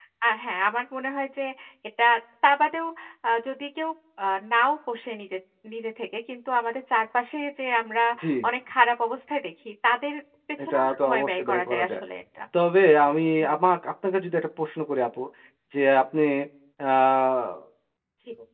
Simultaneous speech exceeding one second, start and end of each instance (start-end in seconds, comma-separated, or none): 10.6-12.0